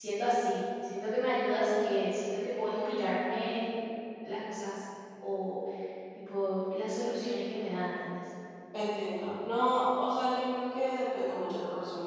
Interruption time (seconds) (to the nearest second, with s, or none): none